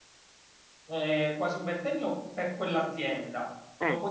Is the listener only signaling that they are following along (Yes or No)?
Yes